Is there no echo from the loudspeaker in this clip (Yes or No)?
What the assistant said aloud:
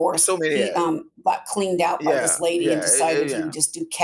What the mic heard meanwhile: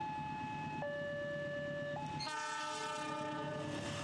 Yes